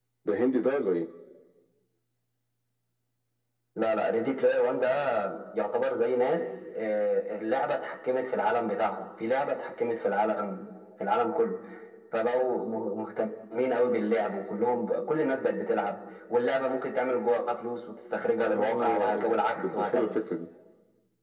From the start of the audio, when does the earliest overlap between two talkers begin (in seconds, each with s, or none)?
18.4 s